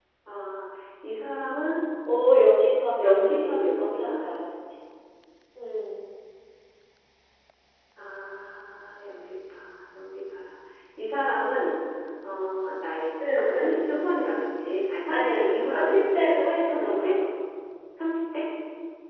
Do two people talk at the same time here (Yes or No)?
Yes